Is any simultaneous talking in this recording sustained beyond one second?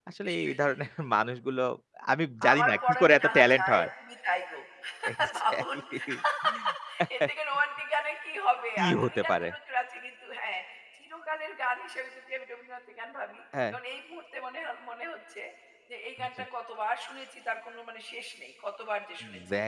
Yes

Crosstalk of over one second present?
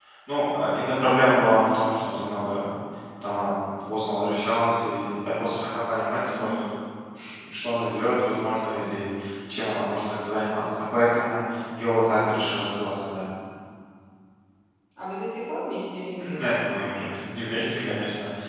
No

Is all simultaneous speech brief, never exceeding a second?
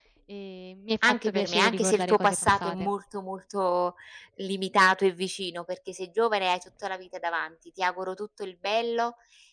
No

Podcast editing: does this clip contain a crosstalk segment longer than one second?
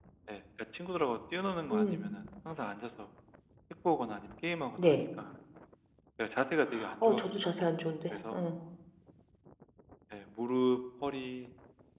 No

